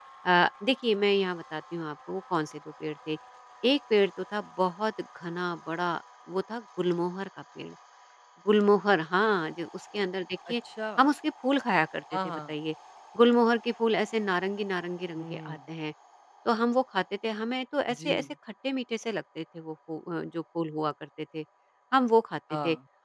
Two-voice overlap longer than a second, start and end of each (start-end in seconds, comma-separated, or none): none